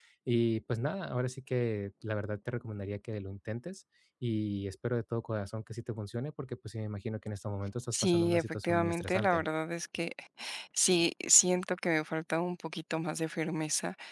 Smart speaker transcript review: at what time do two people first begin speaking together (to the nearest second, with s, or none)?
8 s